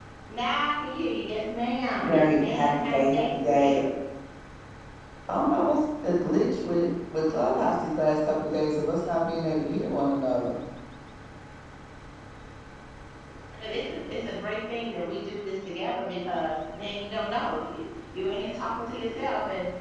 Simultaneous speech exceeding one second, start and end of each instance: 1.9-3.9

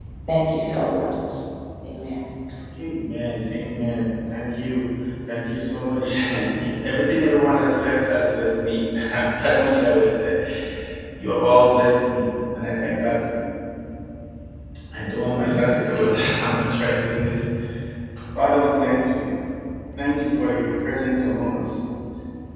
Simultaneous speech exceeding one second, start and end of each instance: none

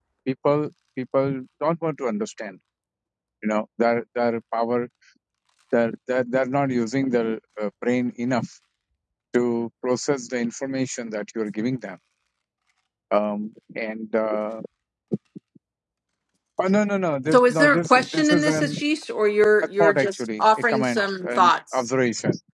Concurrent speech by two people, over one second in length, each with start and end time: 17.3-18.8, 19.8-21.8

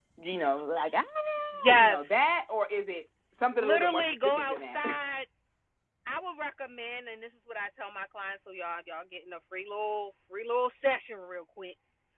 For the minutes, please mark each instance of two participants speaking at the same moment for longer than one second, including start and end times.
3.5-4.8

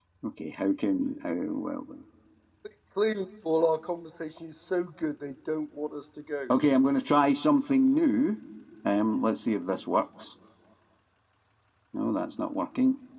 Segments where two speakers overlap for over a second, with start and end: none

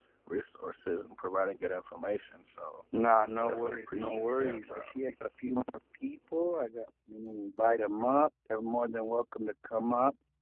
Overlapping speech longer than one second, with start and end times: 3.4-4.9

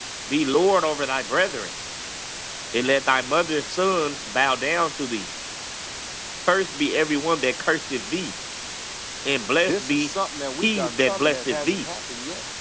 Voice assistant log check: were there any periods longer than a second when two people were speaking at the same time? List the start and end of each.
10.6-11.8

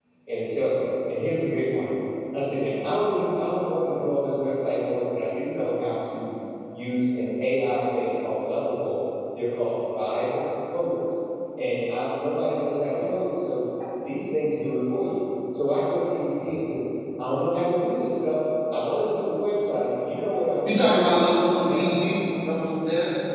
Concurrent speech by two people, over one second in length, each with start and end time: none

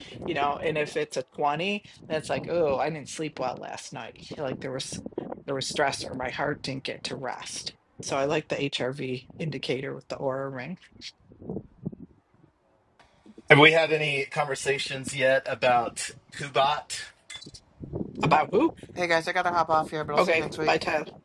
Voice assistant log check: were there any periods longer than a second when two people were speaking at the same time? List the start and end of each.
none

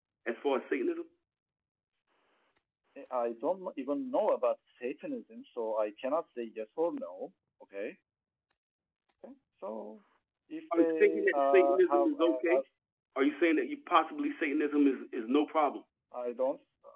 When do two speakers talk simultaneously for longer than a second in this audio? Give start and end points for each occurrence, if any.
10.8-12.6

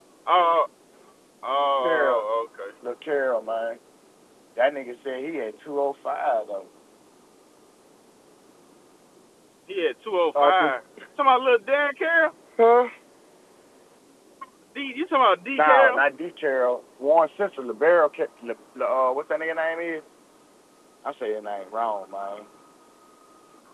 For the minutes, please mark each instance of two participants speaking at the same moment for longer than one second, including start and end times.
none

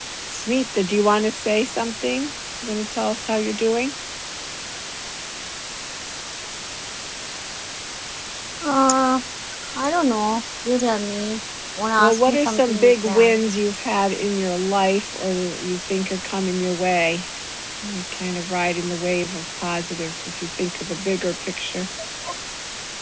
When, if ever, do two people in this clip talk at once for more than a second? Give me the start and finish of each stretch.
12.0-13.4

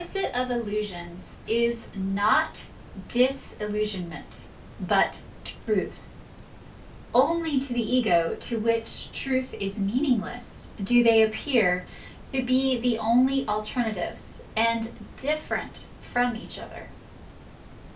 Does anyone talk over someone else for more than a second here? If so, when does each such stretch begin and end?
none

